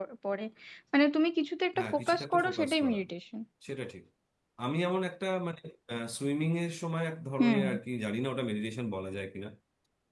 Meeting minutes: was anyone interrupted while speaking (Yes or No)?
Yes